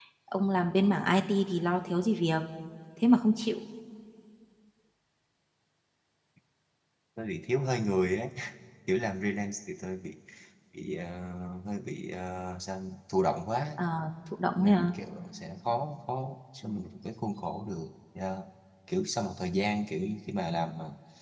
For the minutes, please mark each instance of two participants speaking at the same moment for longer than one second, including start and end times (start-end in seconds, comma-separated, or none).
none